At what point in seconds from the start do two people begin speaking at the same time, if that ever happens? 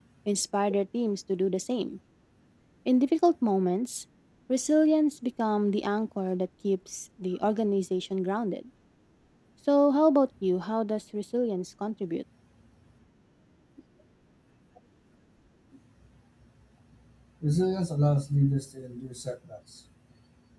none

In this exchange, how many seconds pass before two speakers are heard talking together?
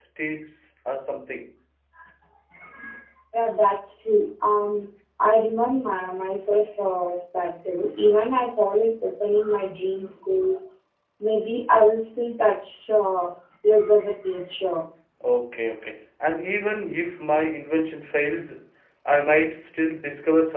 none

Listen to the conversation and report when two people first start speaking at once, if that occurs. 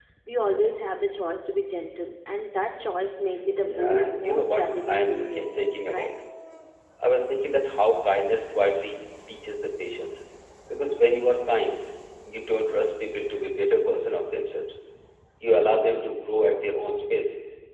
3.5 s

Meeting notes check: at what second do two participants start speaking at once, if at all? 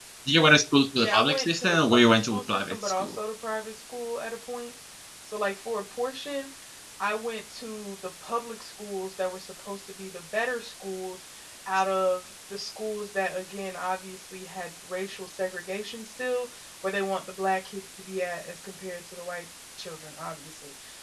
1.0 s

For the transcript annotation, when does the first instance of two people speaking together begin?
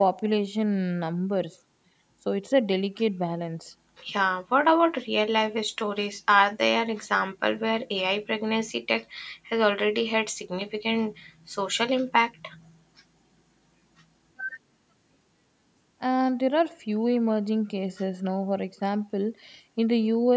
none

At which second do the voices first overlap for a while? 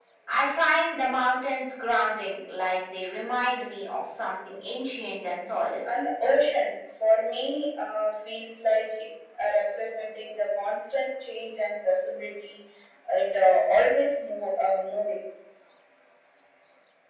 none

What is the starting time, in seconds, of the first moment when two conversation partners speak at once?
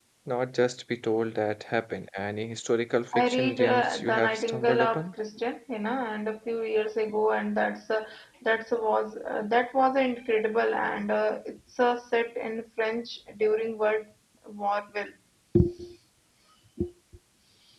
3.1 s

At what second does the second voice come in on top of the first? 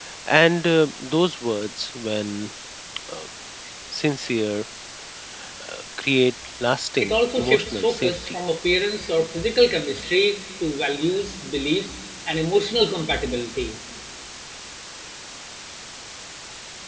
7.0 s

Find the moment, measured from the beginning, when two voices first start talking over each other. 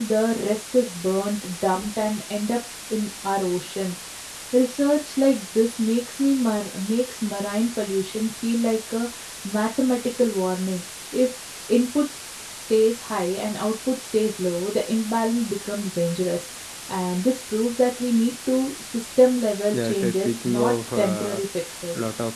19.7 s

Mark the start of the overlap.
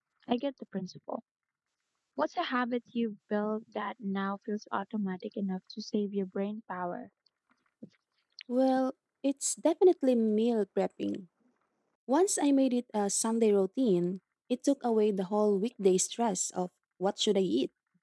none

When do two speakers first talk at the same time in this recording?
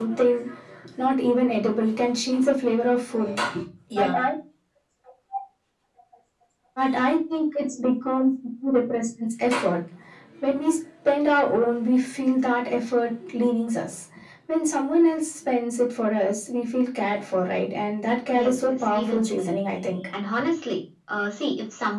18.3 s

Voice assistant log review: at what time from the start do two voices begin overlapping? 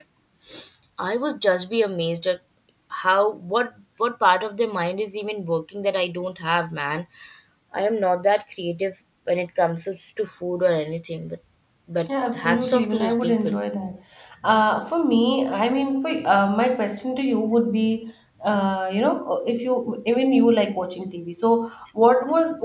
12.3 s

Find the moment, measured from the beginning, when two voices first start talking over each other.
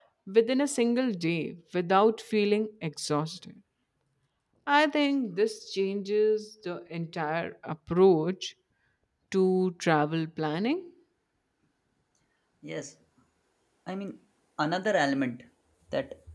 none

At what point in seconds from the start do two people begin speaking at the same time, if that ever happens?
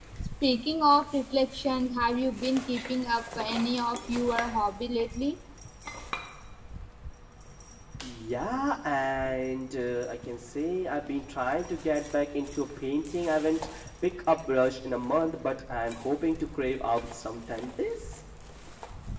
none

